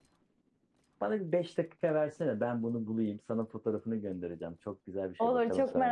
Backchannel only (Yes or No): No